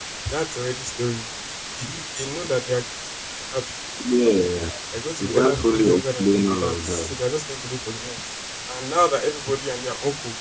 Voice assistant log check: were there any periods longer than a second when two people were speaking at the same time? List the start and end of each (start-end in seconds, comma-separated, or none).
5.2-7.2